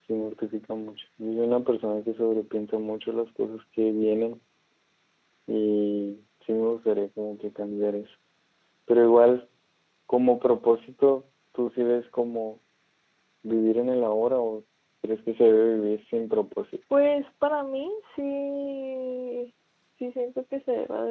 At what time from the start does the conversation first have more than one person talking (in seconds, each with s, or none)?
none